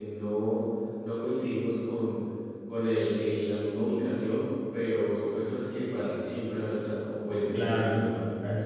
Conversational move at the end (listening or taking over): taking over